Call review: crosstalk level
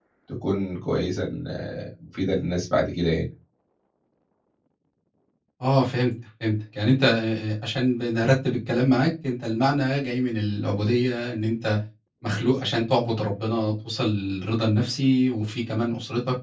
none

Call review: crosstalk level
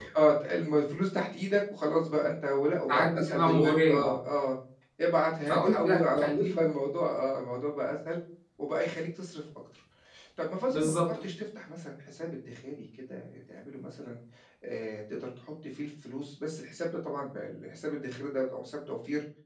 present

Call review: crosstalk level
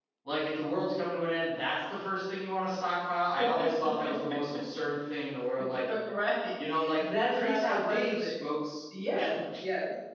present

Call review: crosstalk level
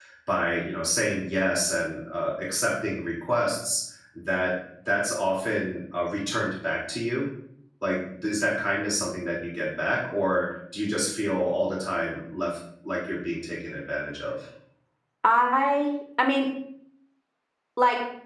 none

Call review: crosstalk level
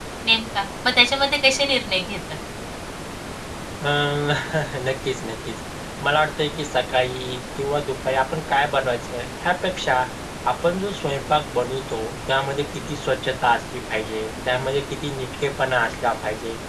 none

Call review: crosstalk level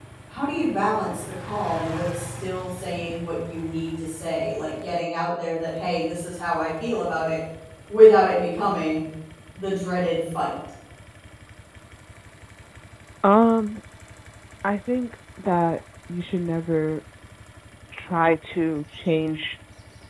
none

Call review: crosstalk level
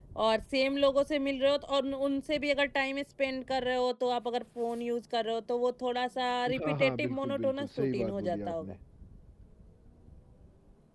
present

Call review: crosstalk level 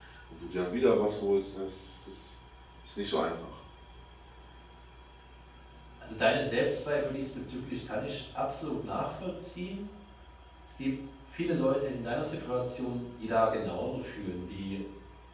none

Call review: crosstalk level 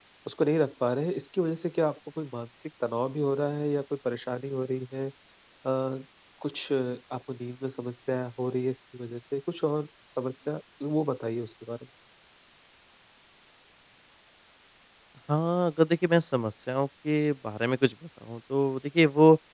none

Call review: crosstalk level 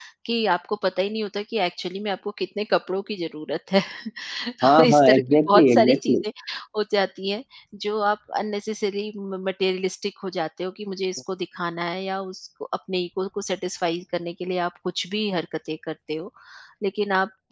present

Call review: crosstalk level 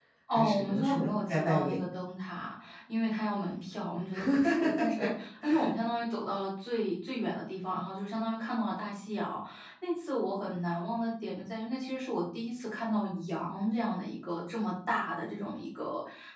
present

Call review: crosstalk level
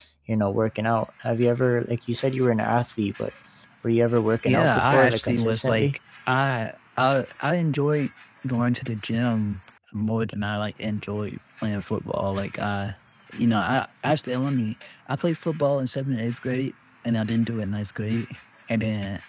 present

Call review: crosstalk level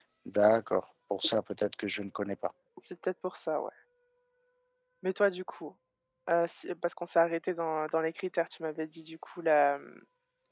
none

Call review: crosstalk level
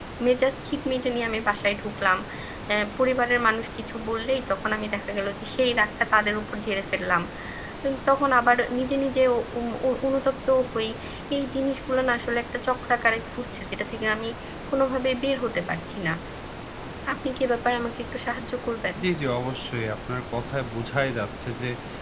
none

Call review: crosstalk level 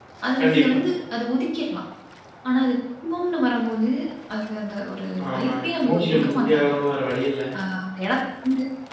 present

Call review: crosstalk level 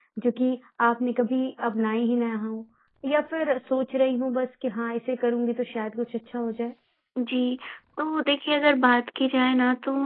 none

